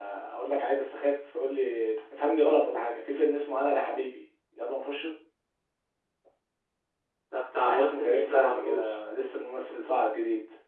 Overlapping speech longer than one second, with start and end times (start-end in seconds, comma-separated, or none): 7.6-8.9